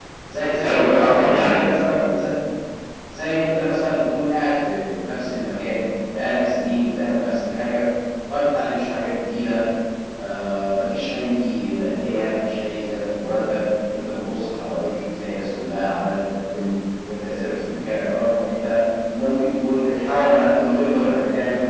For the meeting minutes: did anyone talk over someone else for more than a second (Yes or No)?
Yes